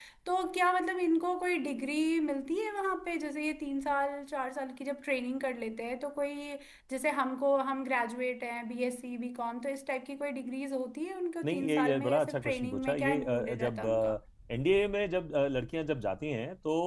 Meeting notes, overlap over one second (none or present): present